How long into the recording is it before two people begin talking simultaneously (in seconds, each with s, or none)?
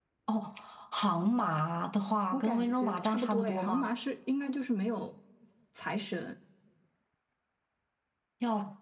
2.3 s